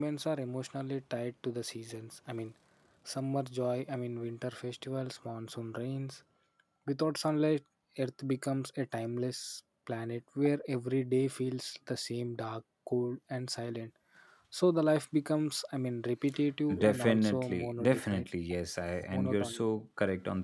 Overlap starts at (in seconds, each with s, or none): 16.8 s